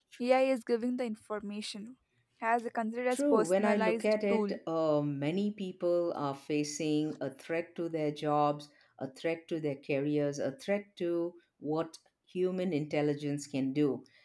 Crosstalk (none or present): present